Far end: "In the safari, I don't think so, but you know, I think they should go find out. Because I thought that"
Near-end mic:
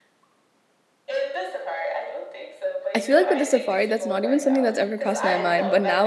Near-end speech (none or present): present